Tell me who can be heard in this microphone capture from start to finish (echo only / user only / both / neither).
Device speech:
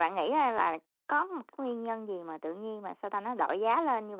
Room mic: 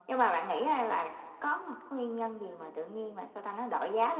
echo only